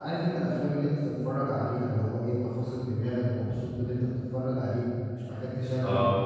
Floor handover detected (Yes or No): No